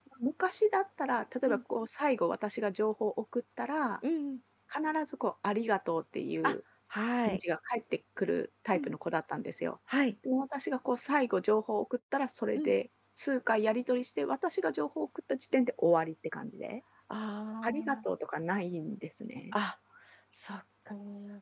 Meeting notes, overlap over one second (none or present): none